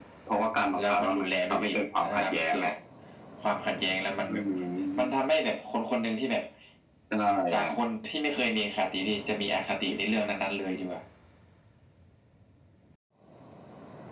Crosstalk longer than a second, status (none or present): present